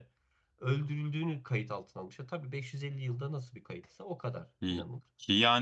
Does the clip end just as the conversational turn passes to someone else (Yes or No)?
Yes